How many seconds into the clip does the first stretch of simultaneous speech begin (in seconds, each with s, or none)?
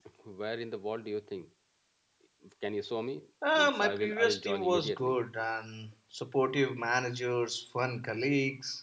3.4 s